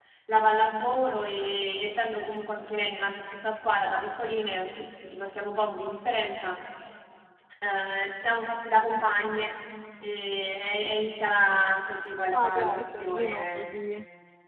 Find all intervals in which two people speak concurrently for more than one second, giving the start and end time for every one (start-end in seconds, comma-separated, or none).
12.4-13.8